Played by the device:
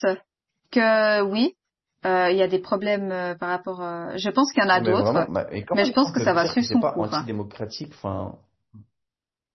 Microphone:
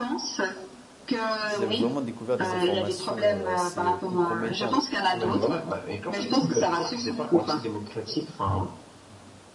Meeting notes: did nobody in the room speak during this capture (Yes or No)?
No